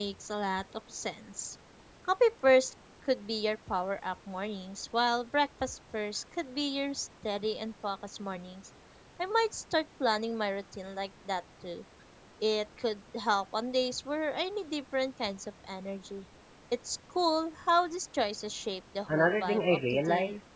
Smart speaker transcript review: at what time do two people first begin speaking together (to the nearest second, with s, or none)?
19 s